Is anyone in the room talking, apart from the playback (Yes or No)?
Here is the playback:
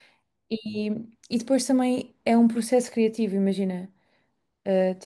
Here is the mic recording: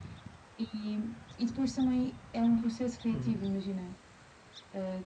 Yes